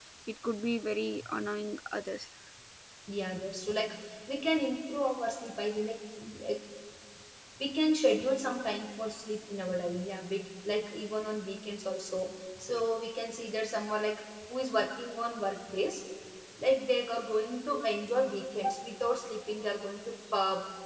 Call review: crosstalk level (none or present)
none